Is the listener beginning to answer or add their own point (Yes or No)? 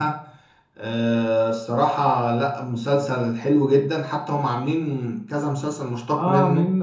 Yes